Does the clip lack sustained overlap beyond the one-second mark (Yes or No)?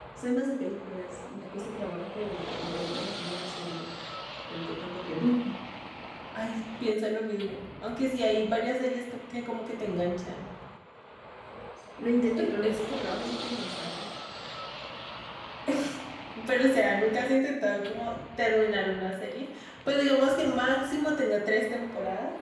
Yes